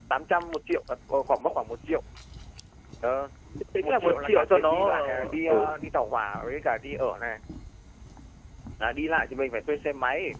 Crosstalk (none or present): present